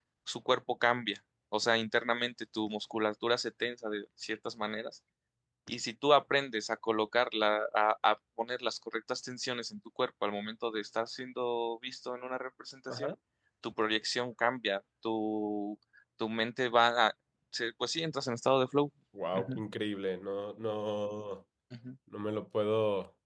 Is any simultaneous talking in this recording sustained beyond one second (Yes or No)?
No